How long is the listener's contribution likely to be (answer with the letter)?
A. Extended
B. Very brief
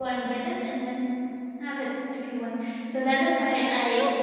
A